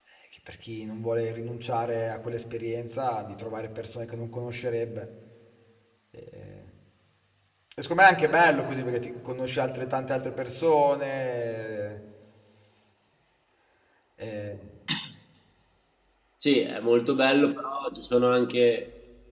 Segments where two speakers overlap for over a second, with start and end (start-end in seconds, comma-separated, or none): none